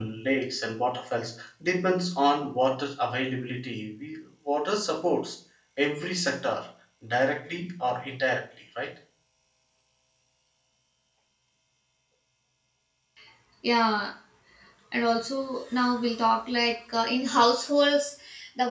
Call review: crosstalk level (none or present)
none